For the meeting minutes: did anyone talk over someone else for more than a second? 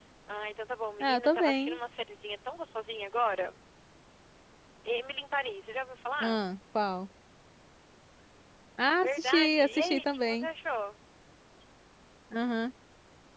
Yes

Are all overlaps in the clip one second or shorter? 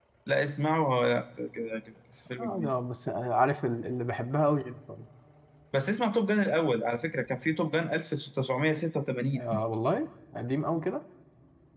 Yes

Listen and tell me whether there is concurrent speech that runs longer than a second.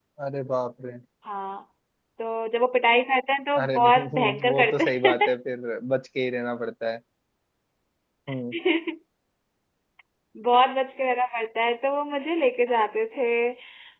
Yes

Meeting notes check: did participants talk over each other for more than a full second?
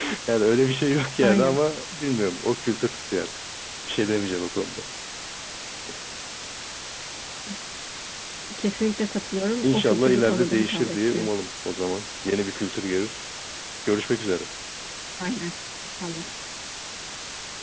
Yes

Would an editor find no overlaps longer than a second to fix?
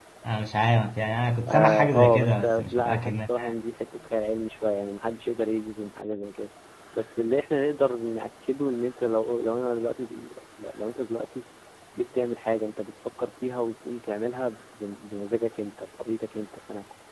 No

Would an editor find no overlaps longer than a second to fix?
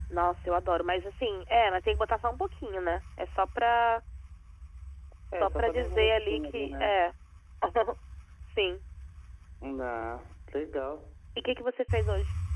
No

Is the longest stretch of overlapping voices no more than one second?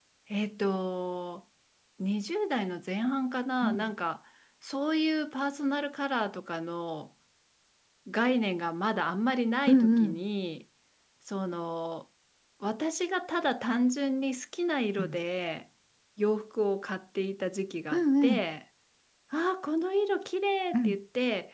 Yes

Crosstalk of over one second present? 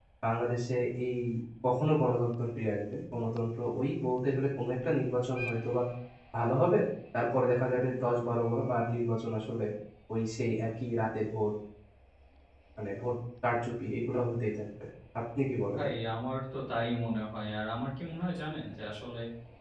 No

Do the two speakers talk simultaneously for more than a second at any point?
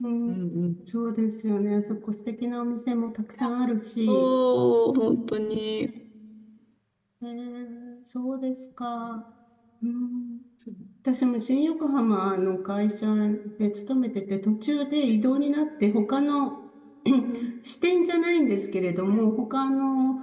No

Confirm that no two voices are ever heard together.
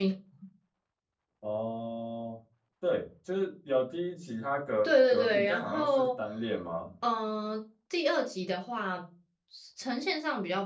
No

